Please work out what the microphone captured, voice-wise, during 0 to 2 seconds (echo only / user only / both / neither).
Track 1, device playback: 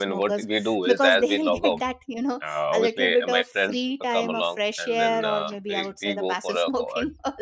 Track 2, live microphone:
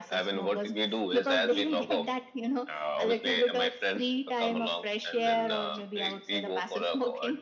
echo only